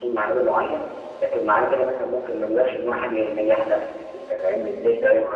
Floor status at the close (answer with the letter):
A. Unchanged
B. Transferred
A